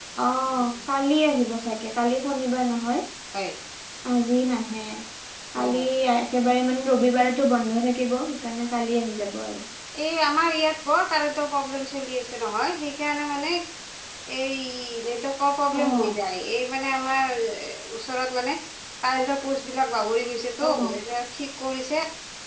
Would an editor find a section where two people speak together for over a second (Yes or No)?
No